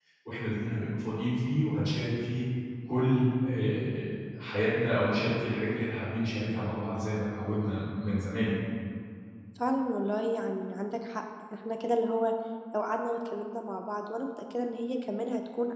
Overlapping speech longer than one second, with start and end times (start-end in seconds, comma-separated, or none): none